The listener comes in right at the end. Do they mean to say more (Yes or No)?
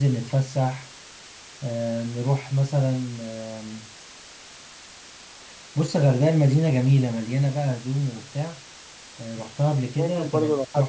Yes